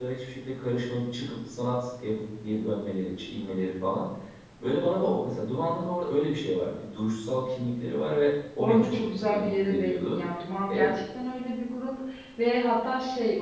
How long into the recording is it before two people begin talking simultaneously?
9 s

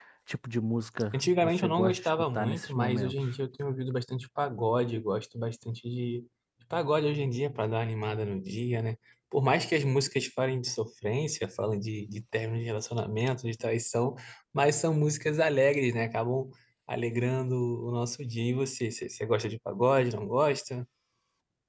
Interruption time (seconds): 1 s

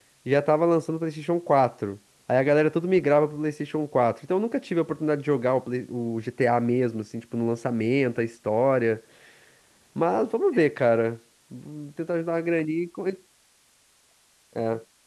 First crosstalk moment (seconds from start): none

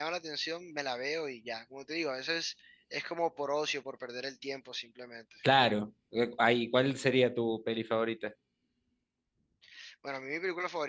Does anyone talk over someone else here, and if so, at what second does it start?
none

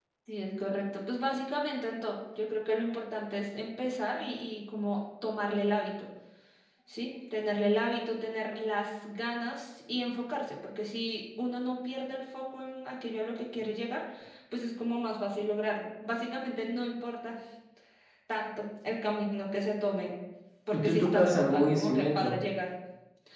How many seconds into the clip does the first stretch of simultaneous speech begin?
21 s

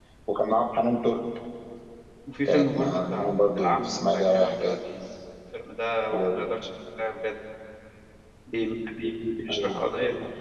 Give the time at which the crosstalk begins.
2 s

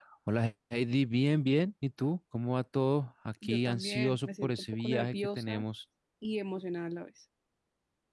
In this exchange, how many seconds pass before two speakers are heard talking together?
3 s

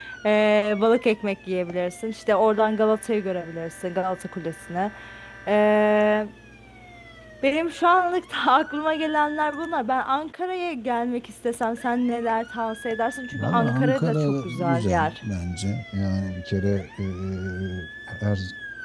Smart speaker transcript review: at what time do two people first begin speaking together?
13 s

